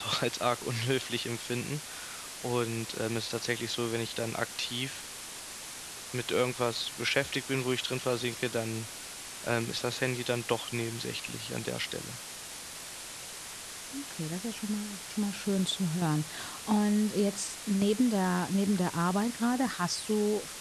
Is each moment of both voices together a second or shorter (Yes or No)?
Yes